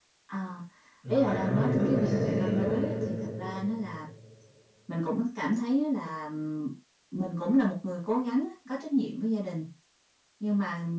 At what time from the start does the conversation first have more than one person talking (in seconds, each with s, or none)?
1.1 s